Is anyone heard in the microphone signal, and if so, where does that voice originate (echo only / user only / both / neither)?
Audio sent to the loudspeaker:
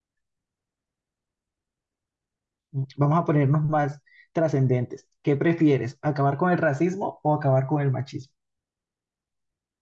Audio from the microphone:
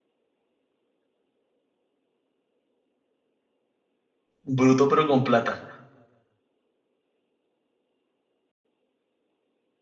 user only